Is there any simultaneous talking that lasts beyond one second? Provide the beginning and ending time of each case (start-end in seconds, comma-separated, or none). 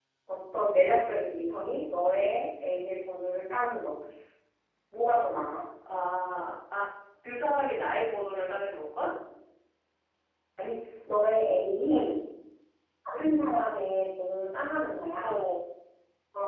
none